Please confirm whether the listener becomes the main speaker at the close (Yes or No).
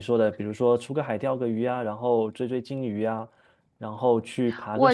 Yes